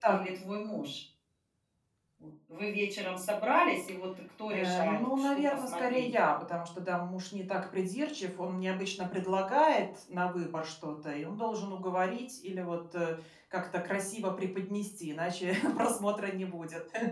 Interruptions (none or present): present